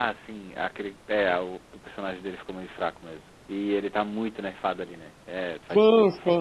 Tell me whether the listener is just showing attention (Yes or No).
No